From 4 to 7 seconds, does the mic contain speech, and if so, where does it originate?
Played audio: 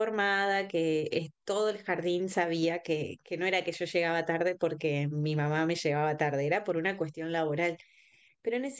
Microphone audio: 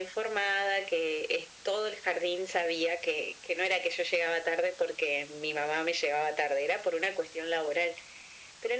echo only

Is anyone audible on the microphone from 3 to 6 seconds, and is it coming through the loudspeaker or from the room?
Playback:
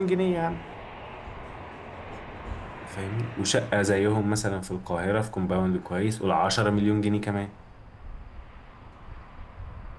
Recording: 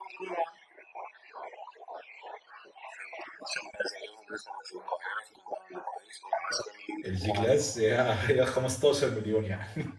echo only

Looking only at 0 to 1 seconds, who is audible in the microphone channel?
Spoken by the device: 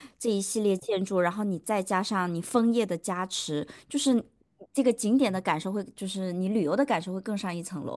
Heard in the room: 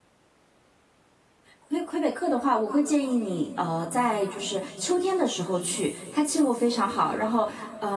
neither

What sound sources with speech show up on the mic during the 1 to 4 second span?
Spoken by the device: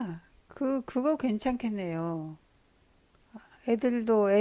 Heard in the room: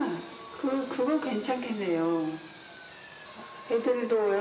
echo only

